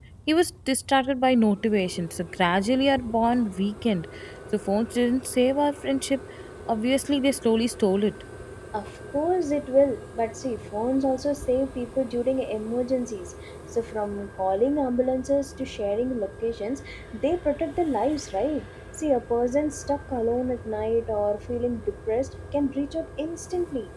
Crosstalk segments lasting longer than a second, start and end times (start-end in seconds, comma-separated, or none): none